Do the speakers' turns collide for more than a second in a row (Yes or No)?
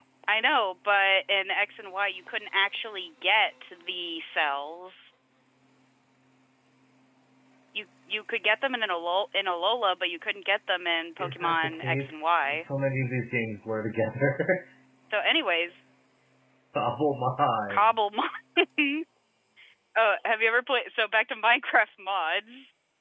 Yes